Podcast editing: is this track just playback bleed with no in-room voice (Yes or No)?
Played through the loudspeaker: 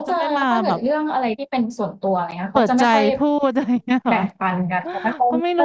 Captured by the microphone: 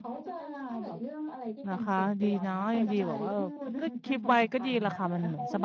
No